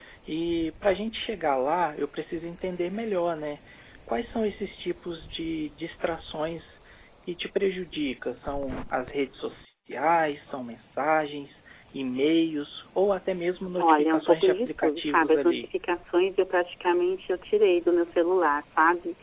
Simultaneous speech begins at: 13.8 s

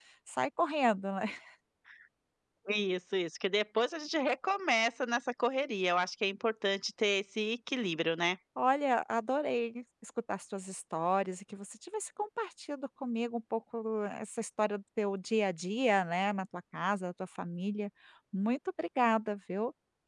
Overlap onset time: none

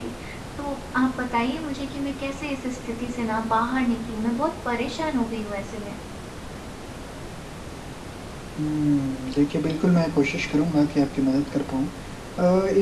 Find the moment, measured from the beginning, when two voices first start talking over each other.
none

